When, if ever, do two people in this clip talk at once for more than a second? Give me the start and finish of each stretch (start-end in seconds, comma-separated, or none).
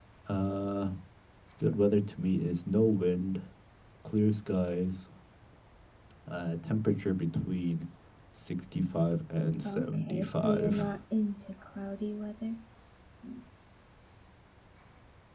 9.6-10.9